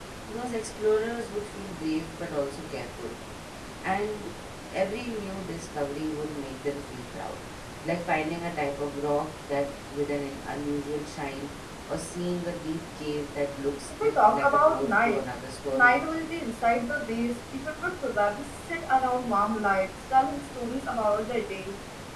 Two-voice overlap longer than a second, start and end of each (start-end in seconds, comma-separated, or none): 14.0-15.2